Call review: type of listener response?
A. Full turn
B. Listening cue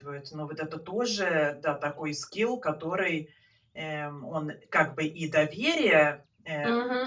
A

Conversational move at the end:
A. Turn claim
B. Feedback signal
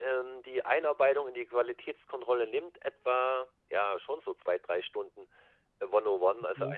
B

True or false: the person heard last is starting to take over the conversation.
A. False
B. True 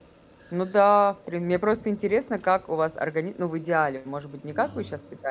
A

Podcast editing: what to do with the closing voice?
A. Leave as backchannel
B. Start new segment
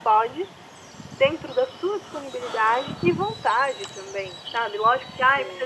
A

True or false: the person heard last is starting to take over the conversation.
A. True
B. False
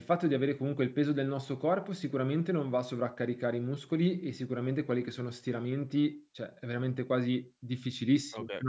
A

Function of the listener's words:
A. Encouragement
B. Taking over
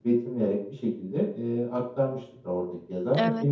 A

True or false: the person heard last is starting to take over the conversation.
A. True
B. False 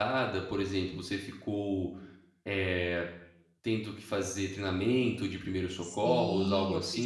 A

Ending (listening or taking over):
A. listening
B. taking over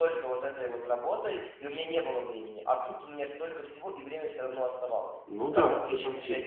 B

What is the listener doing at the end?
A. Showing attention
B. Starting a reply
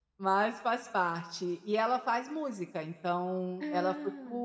A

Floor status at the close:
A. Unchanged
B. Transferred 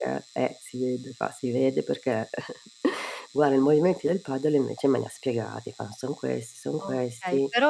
B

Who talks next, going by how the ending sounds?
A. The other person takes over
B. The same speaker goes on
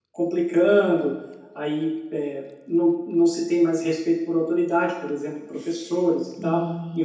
A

